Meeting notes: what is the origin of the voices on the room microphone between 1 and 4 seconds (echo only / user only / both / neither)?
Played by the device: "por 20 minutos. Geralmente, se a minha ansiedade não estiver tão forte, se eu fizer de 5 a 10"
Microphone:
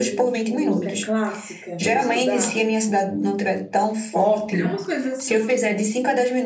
both